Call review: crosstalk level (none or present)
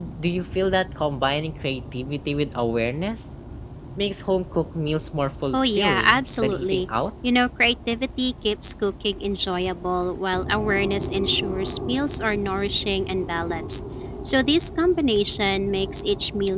present